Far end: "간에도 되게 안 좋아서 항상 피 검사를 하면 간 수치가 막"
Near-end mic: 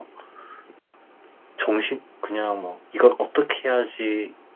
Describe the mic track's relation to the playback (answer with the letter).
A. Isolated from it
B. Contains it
A